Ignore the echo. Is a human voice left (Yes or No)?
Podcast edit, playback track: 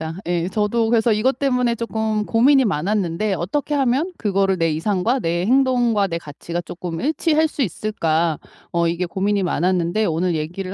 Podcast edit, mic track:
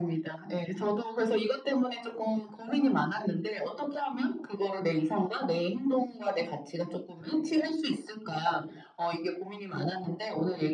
No